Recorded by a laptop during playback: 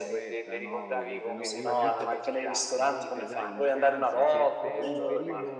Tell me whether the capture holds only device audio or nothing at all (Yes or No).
No